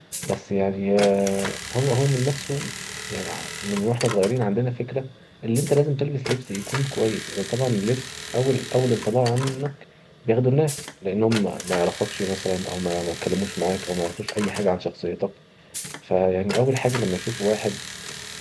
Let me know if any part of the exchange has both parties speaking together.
No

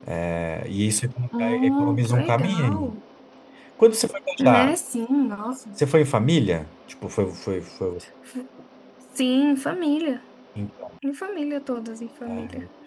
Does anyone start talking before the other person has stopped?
Yes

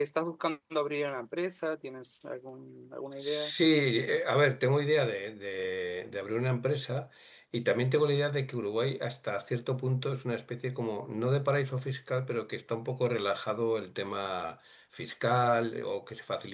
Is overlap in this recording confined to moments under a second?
Yes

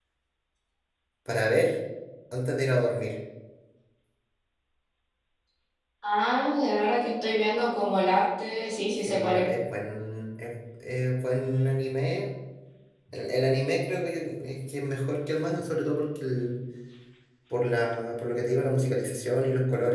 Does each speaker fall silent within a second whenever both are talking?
Yes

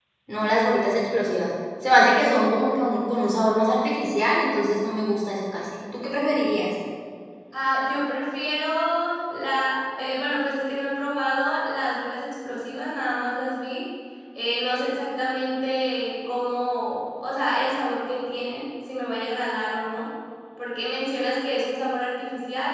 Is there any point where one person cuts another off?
No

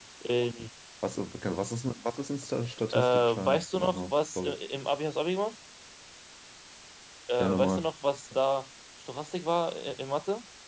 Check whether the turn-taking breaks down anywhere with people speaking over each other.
Yes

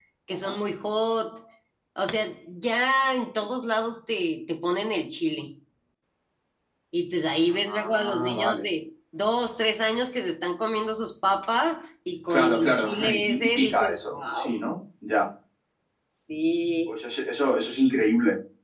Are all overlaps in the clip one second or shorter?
No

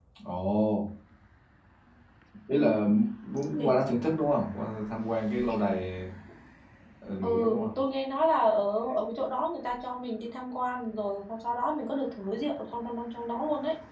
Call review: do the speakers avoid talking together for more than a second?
Yes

